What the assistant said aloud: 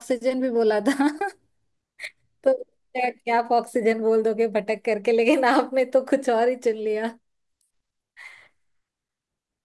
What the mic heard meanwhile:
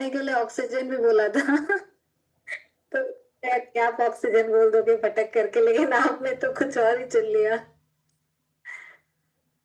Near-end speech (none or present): none